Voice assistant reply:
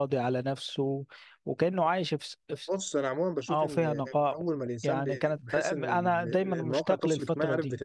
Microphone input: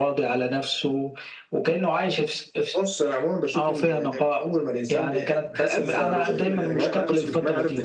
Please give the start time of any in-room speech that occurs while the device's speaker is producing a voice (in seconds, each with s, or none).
5.7 s